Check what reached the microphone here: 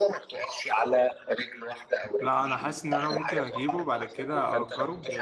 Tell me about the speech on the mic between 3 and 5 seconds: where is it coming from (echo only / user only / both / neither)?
both